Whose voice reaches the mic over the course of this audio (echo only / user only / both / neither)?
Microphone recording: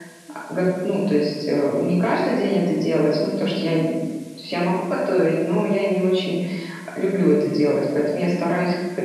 echo only